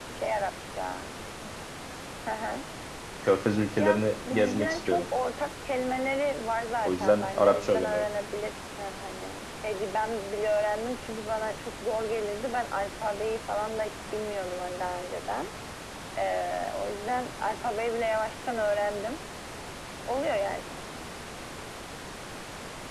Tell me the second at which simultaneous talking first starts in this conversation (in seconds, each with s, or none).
3.8 s